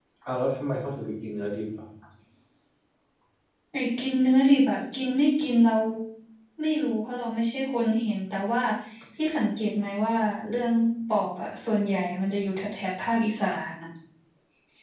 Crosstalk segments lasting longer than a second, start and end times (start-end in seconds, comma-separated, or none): none